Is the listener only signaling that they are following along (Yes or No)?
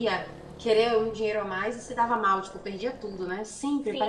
No